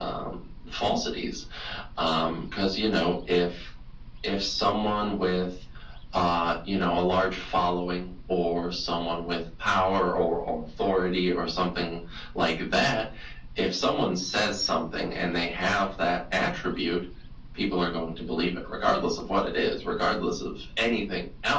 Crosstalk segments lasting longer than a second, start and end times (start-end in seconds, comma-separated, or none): none